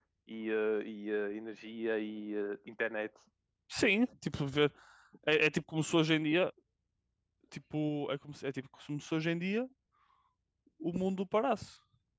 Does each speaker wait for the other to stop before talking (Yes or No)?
Yes